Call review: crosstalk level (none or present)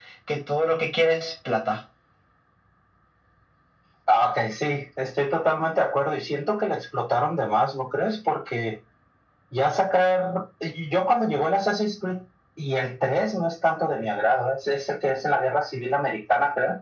none